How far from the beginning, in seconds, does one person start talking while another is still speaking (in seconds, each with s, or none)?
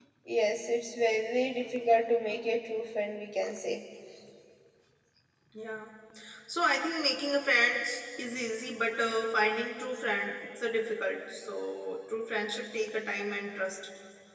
none